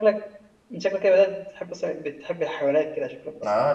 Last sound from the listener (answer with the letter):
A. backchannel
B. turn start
B